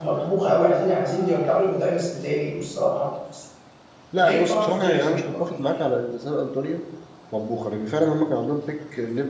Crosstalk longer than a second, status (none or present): present